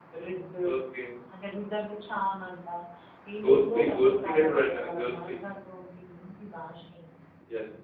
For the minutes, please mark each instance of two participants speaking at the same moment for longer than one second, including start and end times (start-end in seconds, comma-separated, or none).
3.4-5.3